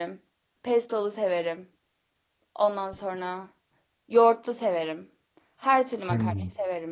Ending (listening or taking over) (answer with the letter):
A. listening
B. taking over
A